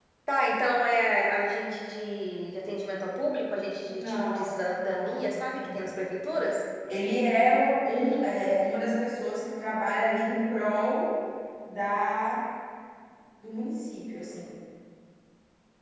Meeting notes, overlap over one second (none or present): present